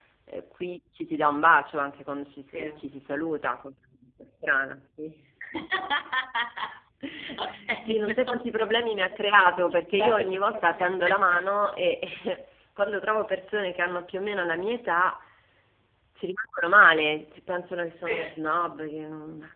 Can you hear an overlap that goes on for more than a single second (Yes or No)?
Yes